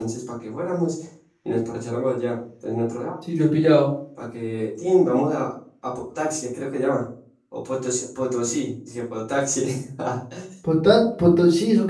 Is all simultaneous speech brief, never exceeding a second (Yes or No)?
Yes